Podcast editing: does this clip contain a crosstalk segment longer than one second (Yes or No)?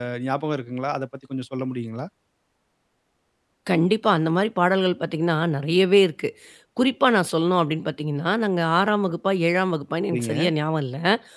No